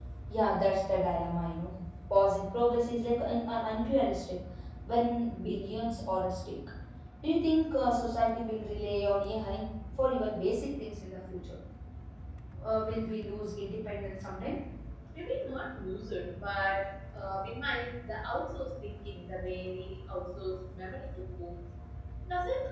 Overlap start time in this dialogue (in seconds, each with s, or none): none